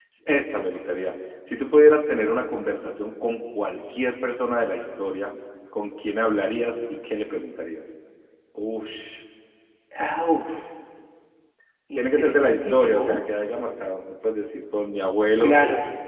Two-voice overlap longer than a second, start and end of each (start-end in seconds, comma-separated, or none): 12.0-13.2